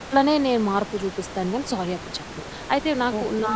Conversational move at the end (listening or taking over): taking over